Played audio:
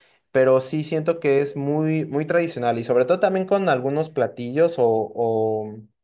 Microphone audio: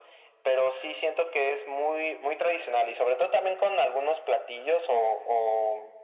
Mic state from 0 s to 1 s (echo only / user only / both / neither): echo only